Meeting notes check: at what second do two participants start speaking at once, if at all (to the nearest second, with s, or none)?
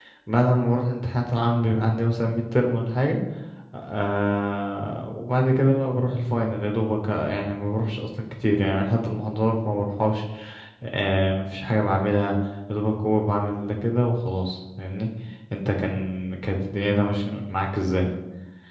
none